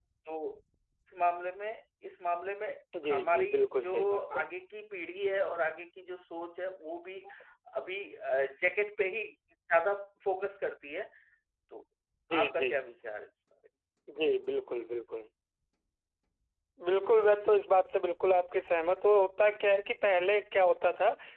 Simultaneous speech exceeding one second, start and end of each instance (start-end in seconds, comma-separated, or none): 3.0-4.4